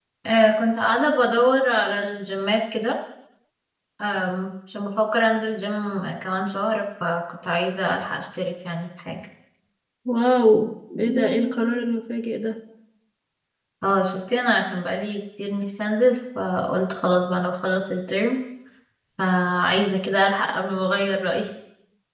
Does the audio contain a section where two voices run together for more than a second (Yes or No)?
No